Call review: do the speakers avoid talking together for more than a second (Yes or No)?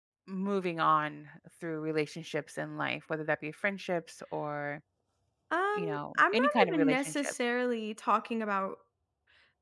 No